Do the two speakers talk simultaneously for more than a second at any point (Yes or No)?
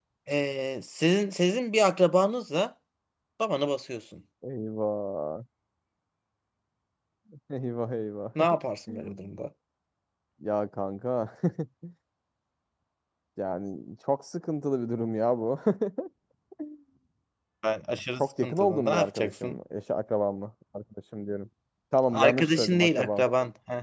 Yes